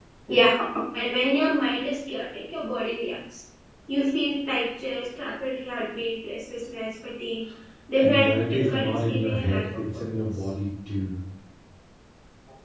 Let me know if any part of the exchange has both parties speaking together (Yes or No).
Yes